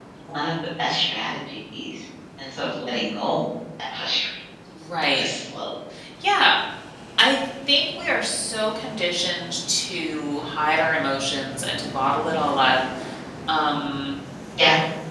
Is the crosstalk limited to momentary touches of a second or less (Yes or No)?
Yes